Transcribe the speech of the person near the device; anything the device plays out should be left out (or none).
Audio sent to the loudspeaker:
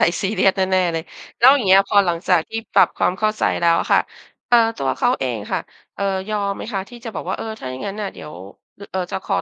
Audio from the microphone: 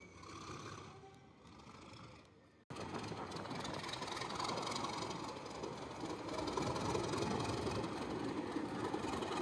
none